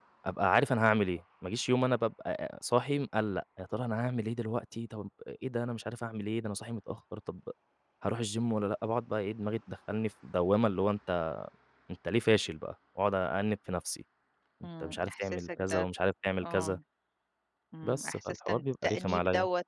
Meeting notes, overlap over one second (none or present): present